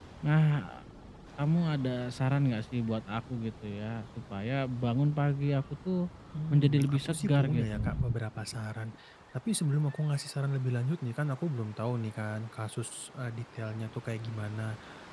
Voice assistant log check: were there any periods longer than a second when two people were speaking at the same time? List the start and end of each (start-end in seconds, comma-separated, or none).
6.5-7.9